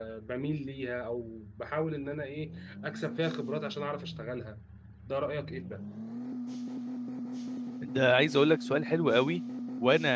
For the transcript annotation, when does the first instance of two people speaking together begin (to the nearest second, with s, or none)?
none